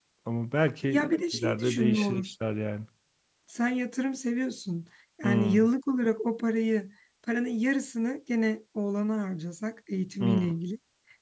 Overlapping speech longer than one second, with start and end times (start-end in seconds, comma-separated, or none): 0.9-2.3